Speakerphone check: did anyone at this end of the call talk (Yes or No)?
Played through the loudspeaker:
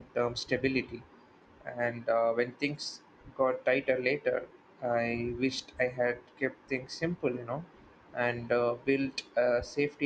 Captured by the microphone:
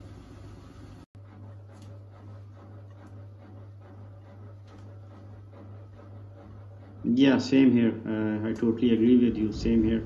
Yes